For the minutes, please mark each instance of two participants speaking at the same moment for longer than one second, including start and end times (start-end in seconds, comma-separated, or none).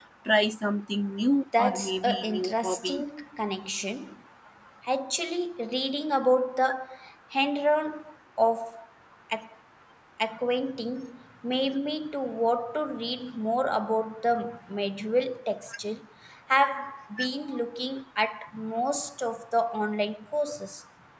1.6-3.0